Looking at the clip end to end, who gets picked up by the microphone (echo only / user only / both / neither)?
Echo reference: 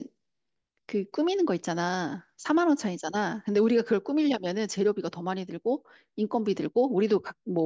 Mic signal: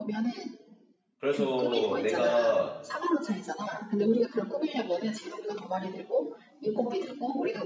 both